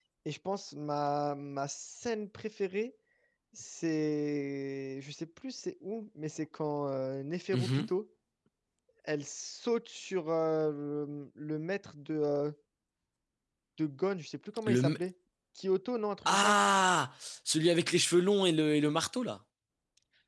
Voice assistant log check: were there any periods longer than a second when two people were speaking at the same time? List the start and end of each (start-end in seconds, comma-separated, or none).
none